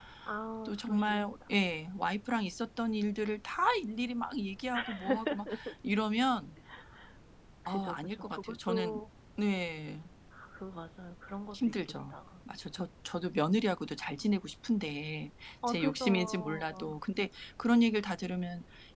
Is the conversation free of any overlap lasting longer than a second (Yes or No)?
No